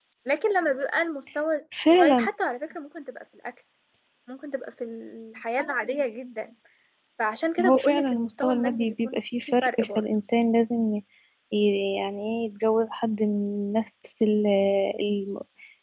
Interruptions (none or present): present